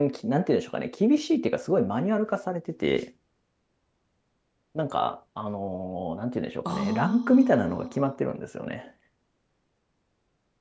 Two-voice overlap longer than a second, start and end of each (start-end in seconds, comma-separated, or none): 6.6-8.0